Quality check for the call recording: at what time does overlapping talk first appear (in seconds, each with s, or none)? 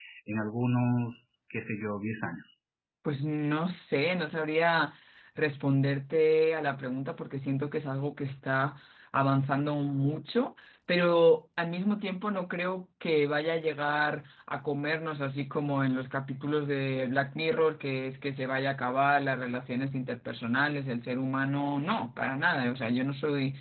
none